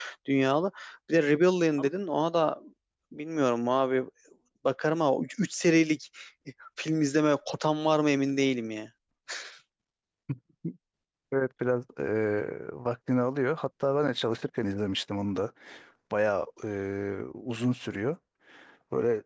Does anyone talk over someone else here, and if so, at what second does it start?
none

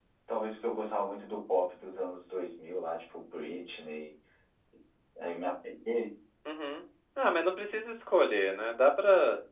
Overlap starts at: none

